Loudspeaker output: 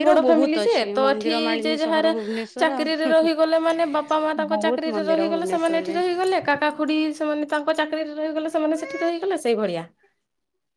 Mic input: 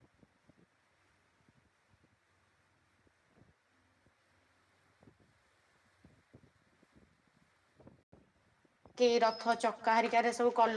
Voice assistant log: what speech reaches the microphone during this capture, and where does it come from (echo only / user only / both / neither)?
user only